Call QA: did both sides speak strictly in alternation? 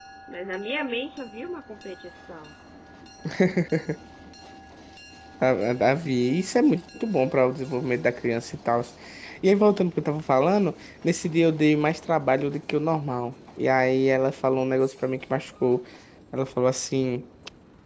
Yes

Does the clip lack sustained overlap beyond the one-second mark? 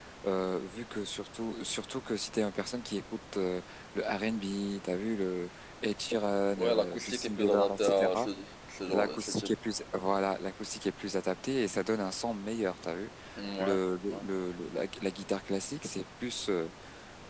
No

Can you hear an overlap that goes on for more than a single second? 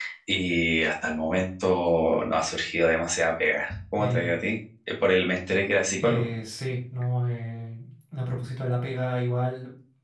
No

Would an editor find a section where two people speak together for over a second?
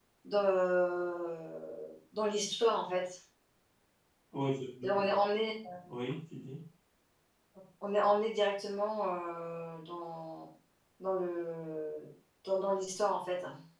No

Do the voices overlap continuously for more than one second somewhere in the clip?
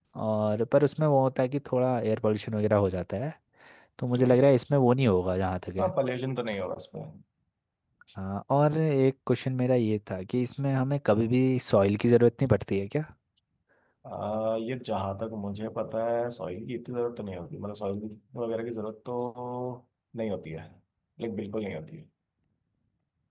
No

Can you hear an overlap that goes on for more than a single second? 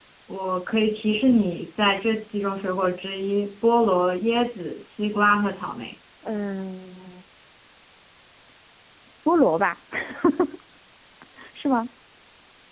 No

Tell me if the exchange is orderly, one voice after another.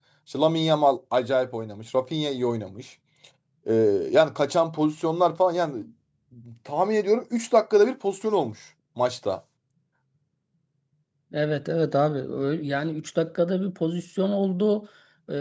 Yes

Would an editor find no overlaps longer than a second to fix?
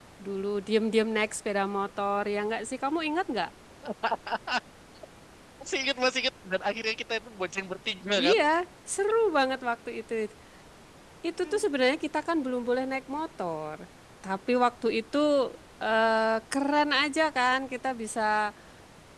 Yes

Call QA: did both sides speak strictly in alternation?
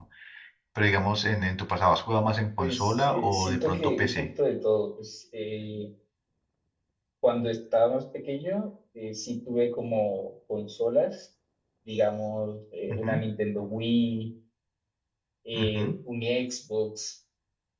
No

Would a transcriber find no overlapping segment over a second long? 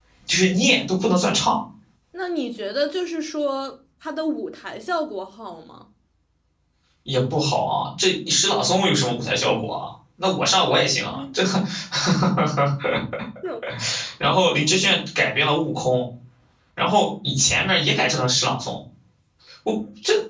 Yes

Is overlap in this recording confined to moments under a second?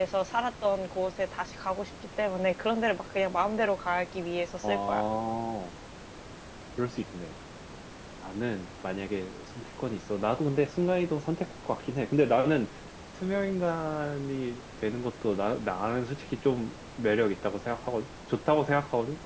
Yes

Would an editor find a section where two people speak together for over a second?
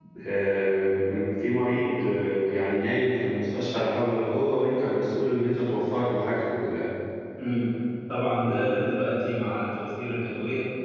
No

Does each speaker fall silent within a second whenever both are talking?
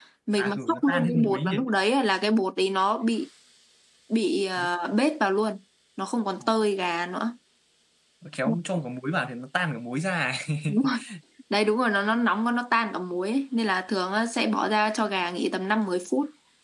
No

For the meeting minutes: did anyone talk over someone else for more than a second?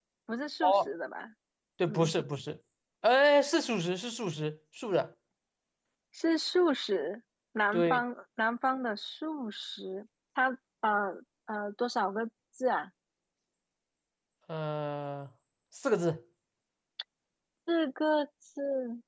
No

